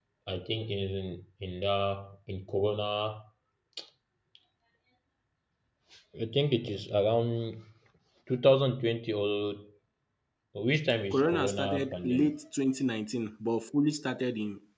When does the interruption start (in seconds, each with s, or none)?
11.1 s